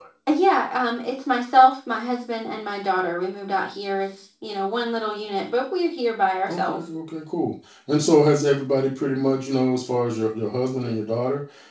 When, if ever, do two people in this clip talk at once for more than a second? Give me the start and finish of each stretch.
none

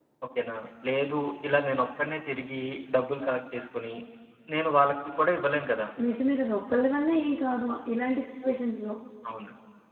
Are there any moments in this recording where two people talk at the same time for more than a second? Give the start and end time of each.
none

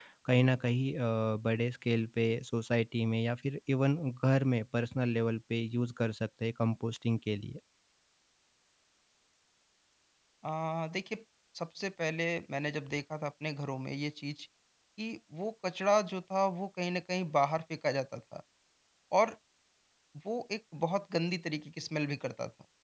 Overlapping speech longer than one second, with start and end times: none

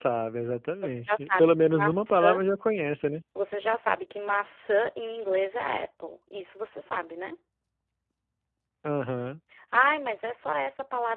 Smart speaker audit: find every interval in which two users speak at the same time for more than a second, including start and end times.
0.8-2.4

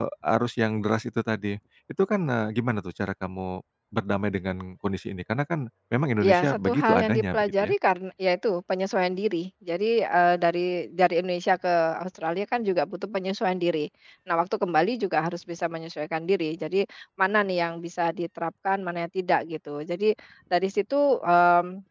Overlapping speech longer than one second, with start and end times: 6.2-7.7

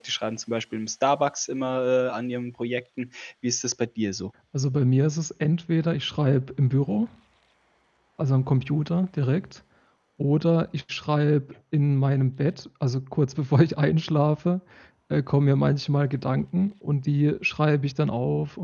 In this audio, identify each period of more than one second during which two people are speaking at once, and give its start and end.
none

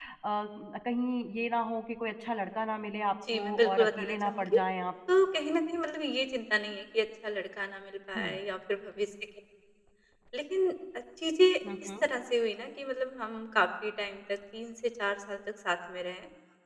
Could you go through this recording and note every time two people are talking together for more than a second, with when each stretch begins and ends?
3.3-4.6

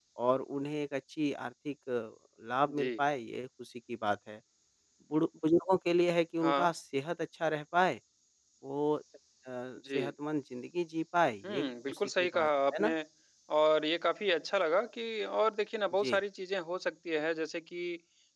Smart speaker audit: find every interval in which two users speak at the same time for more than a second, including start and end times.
11.4-12.9

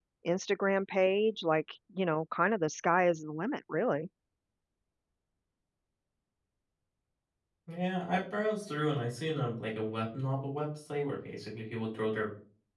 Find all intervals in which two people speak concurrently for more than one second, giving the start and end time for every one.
none

